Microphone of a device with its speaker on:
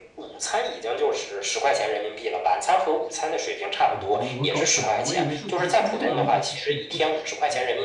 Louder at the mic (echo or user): echo